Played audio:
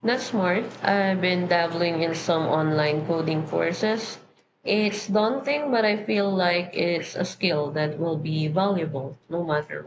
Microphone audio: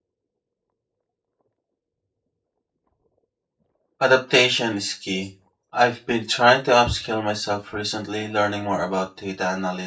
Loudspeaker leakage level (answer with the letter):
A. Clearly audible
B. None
B